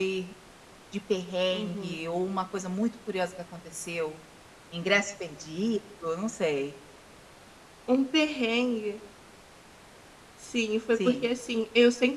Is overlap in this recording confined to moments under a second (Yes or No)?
Yes